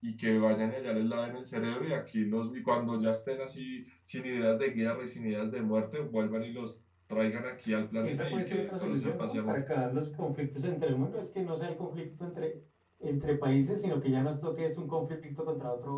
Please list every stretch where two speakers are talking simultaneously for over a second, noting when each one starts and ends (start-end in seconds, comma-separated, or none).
8.0-9.6